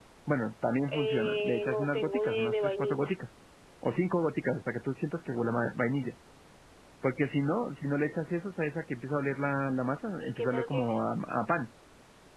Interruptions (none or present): present